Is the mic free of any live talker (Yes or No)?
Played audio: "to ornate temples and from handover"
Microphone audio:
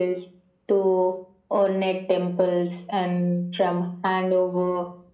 Yes